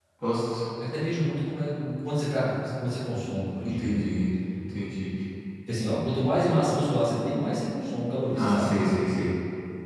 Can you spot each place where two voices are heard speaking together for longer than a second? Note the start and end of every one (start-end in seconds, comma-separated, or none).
none